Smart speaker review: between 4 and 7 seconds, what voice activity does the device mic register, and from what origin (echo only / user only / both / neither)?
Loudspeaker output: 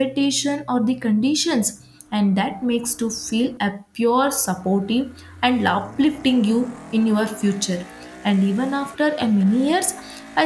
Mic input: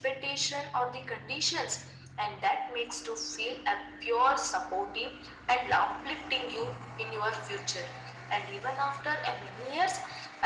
echo only